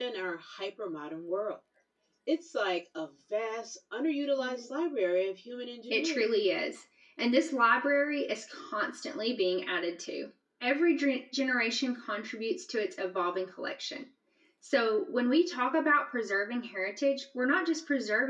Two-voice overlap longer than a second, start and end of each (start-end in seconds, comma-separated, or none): none